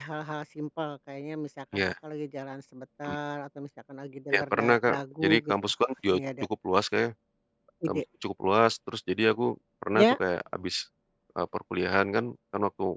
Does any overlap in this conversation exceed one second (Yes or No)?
Yes